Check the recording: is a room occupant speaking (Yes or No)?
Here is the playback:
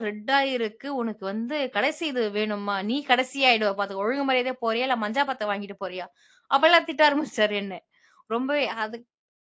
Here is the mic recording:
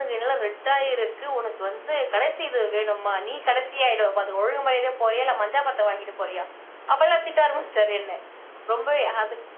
No